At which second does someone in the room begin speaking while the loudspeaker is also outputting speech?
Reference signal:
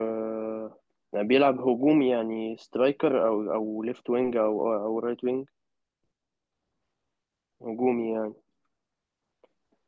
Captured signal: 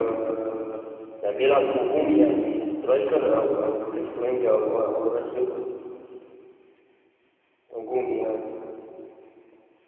none

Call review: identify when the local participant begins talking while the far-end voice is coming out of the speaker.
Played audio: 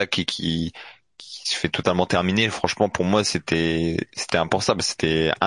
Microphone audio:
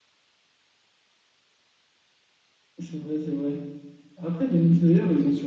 2.8 s

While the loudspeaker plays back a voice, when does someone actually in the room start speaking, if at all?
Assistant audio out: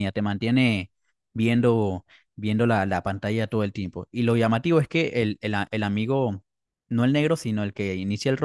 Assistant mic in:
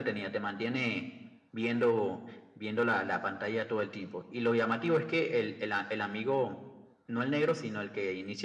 none

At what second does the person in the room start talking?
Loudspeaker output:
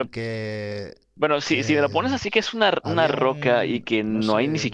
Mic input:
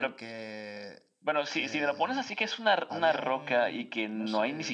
none

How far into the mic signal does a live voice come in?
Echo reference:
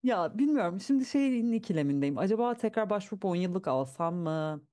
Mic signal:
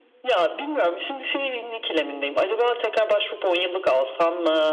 none

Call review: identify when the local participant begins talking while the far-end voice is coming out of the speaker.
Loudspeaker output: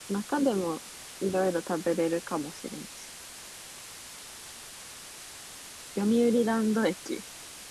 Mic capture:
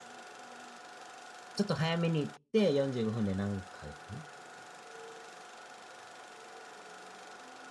1.5 s

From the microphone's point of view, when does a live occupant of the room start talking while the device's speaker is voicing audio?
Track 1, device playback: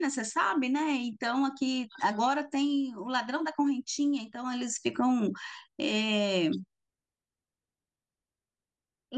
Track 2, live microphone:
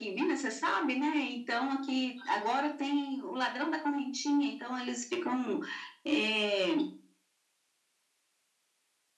none

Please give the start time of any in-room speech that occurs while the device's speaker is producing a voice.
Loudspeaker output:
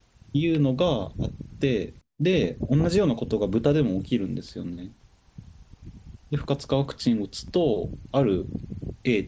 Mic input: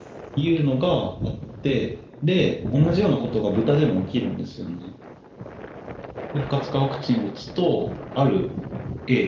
none

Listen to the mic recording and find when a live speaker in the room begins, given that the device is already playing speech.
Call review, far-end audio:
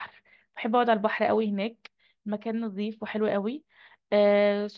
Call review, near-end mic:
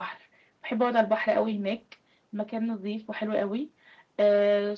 none

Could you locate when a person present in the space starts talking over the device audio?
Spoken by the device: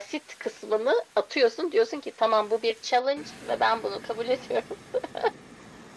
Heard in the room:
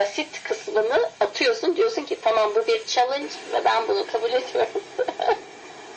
none

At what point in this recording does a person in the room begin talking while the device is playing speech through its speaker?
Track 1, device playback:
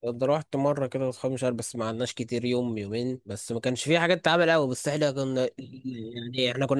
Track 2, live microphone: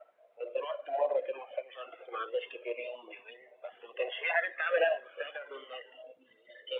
none

